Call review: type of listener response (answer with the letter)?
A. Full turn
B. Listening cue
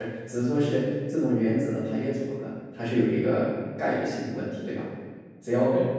B